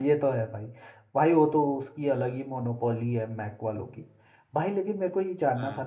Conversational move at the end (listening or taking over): listening